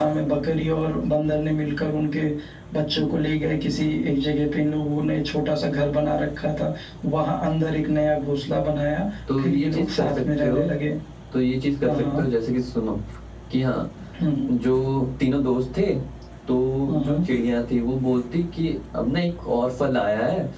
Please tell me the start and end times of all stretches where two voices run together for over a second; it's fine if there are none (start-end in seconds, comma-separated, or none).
9.4-10.6